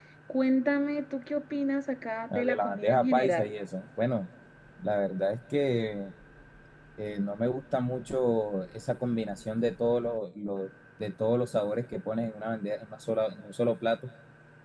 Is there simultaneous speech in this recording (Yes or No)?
Yes